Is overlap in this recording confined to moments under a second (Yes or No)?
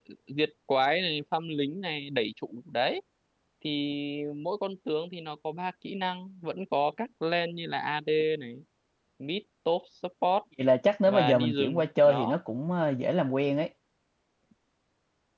No